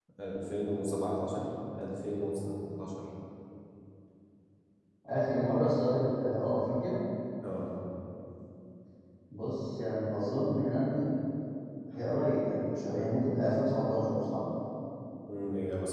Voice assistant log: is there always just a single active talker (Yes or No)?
Yes